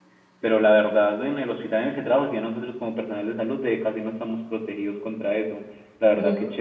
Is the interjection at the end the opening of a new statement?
No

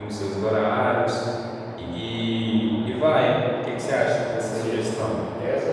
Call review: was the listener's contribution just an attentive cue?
No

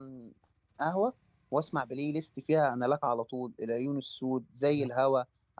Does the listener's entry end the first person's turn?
No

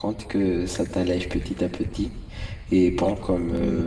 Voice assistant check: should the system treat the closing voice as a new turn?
No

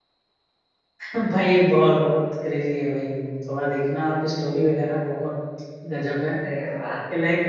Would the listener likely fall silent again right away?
Yes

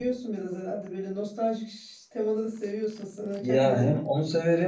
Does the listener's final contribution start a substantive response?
Yes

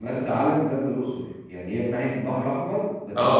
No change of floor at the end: No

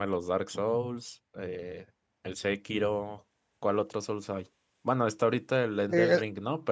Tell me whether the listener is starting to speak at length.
Yes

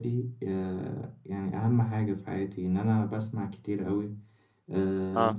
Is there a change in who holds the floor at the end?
No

